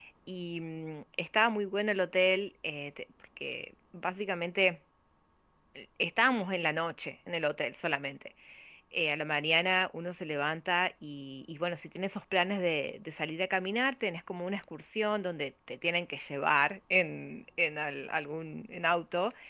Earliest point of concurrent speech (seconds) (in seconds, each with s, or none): none